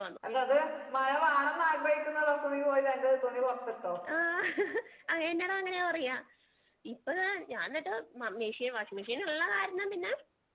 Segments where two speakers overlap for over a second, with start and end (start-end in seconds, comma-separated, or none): none